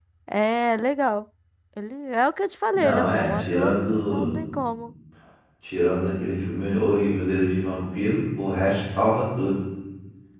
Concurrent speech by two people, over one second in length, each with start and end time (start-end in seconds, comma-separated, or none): 2.7-4.4